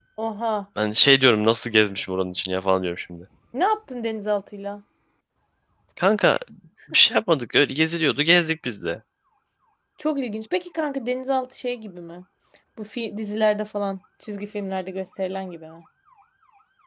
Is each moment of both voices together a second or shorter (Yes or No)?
Yes